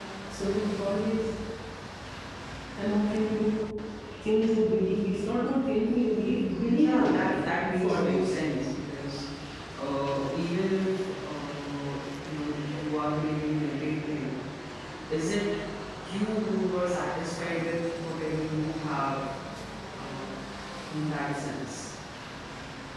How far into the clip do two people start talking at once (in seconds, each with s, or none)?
6.7 s